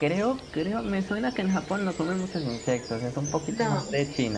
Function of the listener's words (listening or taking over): listening